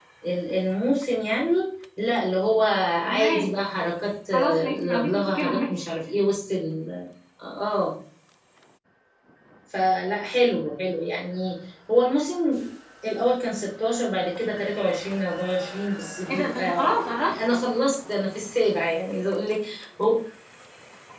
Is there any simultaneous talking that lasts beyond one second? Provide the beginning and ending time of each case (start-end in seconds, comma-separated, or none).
4.3-5.8, 16.3-17.6